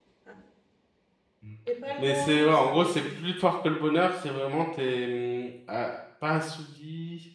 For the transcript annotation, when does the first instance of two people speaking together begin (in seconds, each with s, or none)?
2.0 s